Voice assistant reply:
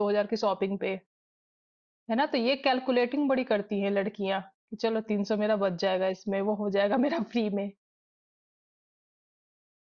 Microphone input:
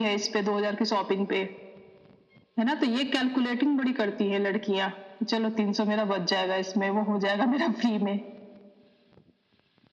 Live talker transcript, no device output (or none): none